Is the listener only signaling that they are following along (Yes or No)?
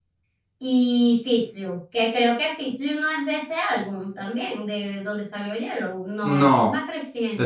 No